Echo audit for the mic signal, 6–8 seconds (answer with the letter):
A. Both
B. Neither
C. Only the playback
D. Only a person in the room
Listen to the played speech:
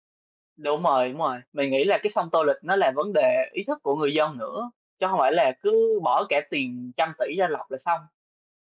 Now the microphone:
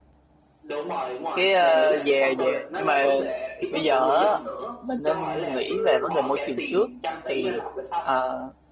A